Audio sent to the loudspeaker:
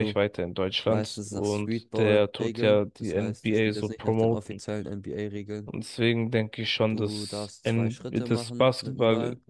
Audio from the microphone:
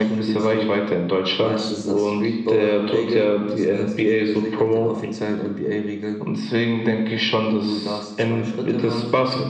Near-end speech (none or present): none